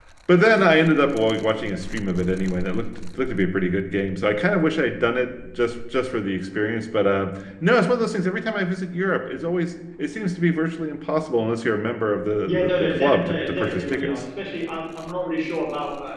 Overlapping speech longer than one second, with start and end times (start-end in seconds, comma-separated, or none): 12.5-14.2